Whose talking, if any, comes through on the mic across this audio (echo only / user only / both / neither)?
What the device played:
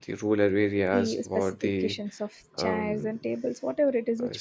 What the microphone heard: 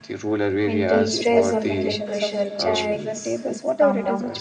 both